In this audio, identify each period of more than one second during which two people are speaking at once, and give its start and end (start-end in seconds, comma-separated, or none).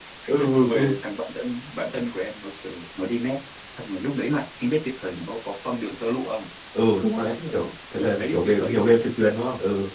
7.4-8.9